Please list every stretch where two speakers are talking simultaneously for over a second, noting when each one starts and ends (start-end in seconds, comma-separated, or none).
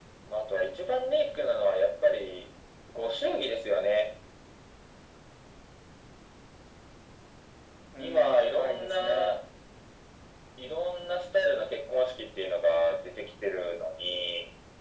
8.0-9.4